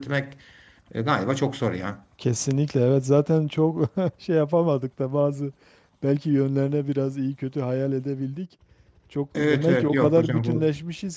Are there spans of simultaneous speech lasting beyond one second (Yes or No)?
Yes